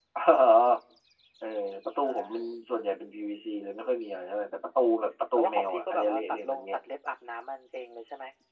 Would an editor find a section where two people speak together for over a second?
Yes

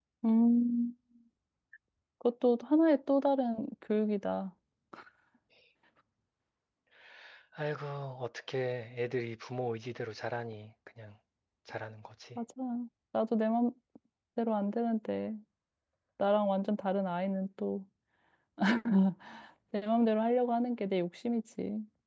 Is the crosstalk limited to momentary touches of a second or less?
Yes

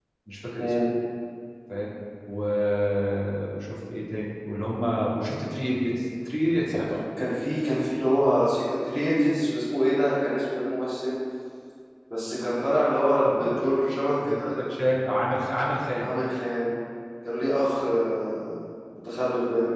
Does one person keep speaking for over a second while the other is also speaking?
Yes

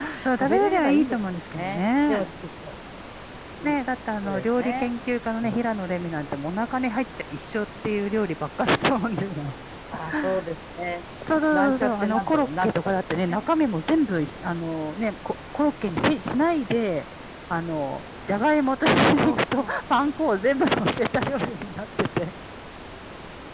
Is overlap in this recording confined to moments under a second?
No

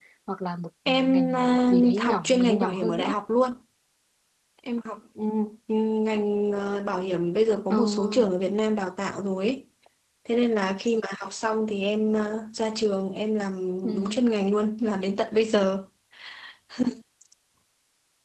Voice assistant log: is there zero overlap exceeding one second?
No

